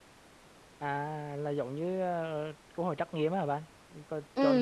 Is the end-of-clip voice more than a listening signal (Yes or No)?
Yes